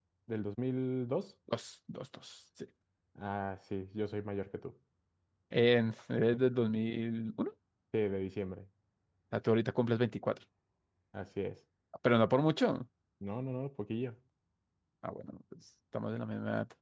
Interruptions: none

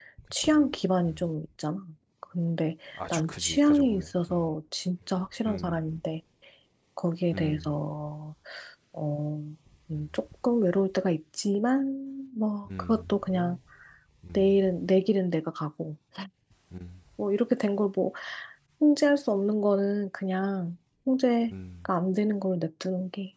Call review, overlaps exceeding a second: present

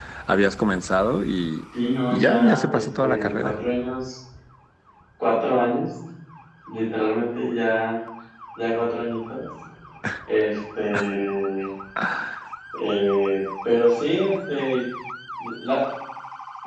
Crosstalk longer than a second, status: present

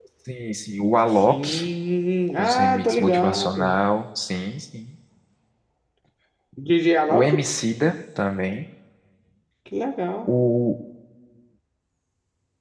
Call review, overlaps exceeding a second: present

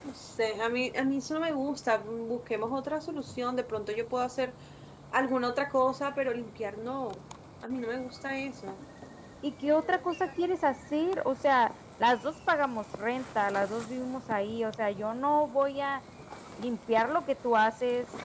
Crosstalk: none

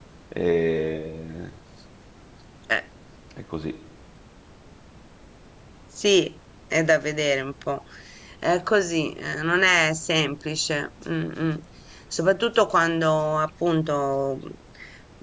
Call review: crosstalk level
none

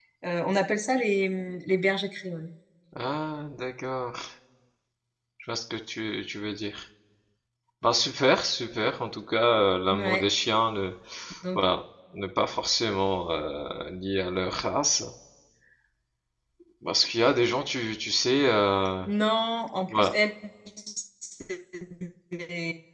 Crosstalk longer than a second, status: none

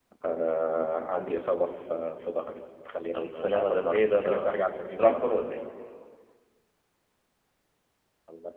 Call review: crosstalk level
present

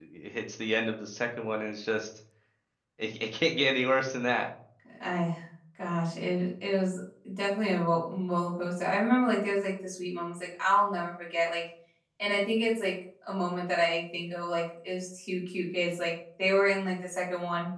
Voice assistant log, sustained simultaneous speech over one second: none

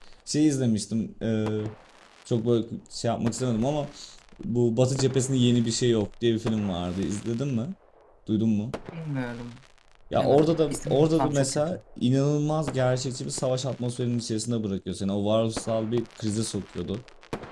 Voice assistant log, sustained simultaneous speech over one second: present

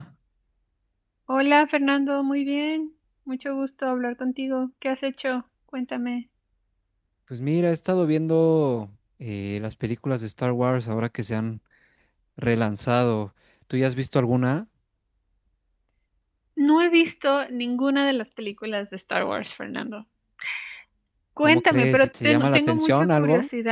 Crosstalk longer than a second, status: present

